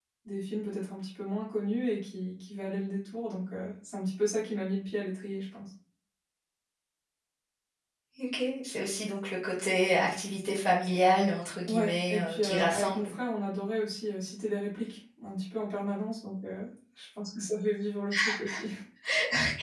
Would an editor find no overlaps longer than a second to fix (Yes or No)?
No